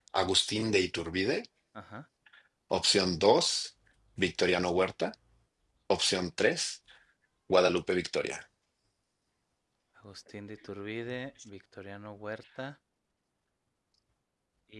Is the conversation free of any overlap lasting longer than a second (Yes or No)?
Yes